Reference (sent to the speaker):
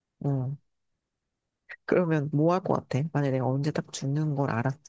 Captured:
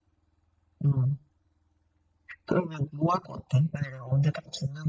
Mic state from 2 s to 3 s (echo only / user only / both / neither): echo only